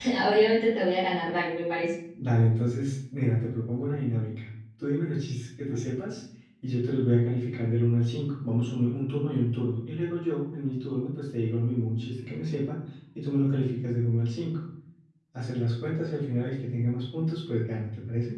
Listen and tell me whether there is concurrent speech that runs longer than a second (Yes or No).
No